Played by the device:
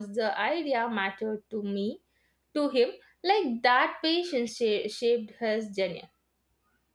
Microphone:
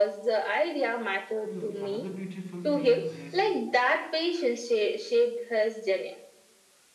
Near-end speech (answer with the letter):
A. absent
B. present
B